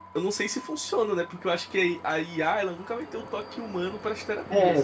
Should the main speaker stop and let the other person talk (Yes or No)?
Yes